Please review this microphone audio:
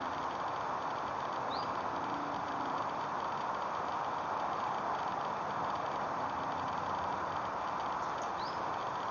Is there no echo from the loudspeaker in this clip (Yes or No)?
Yes